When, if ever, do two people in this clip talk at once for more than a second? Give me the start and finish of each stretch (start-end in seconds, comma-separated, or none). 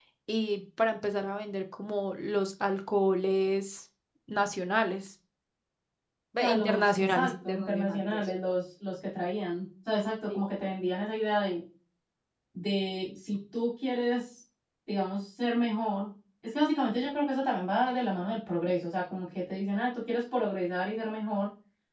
6.4-8.3